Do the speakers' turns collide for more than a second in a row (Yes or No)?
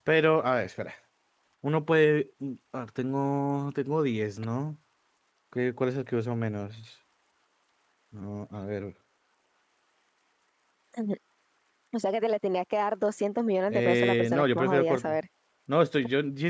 Yes